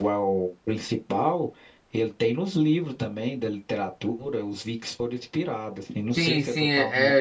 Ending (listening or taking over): taking over